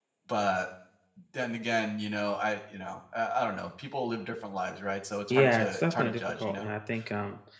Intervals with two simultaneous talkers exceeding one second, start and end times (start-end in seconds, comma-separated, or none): 5.3-6.7